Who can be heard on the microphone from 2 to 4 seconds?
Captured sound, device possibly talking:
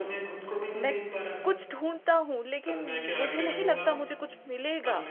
both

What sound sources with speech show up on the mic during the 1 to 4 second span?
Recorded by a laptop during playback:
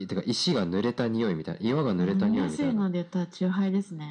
echo only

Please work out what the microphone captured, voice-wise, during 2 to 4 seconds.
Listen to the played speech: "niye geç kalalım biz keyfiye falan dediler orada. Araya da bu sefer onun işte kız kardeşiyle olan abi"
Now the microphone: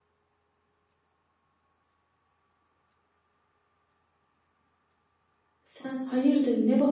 neither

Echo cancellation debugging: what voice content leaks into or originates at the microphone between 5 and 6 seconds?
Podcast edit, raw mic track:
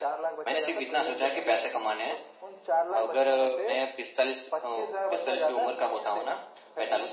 echo only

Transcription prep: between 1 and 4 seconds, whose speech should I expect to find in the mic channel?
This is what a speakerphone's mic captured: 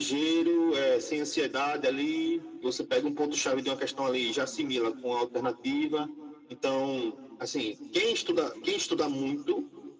echo only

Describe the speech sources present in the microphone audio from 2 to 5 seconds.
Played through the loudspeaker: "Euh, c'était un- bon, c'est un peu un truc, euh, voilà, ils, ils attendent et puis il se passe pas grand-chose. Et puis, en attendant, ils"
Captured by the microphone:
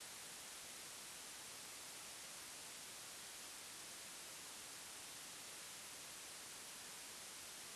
neither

